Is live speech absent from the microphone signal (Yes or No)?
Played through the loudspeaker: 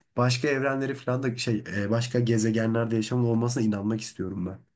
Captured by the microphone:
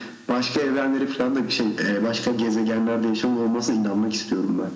Yes